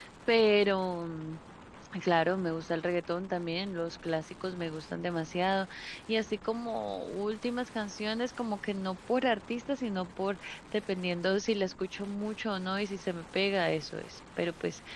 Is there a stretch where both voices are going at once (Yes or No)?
No